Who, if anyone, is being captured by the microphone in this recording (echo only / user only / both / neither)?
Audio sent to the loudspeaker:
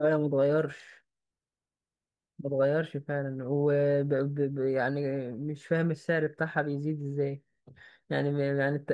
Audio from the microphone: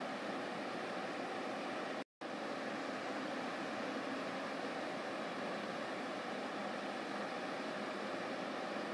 neither